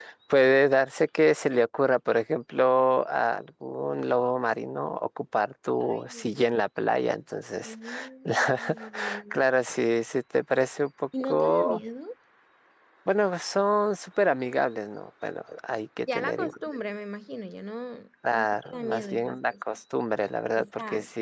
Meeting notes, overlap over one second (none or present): present